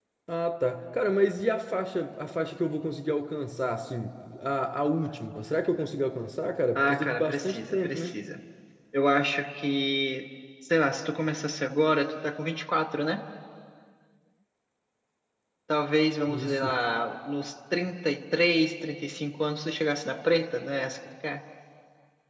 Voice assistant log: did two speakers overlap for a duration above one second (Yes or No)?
Yes